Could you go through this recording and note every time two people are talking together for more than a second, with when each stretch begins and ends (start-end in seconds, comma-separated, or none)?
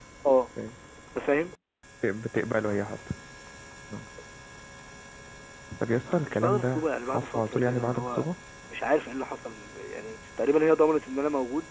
6.3-8.3